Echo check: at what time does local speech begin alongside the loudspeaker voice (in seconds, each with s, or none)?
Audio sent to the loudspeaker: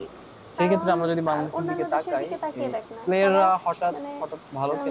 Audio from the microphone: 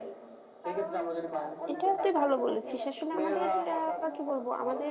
1.7 s